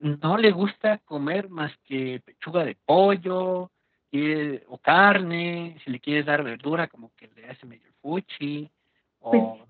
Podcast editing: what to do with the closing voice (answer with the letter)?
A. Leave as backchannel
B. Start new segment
A